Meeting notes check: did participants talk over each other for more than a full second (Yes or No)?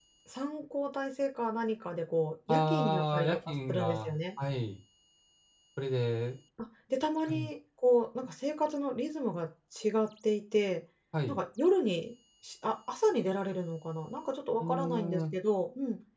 Yes